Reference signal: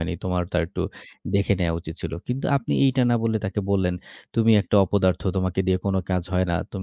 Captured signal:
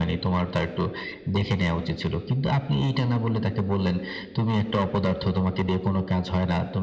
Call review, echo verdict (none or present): present